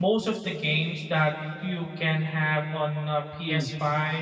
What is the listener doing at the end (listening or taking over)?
listening